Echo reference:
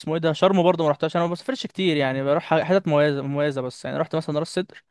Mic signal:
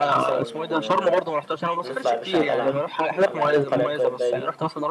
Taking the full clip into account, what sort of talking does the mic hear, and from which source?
both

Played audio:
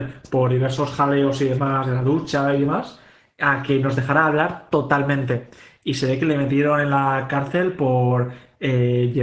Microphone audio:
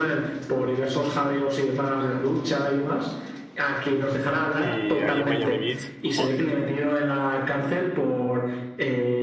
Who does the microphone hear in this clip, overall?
both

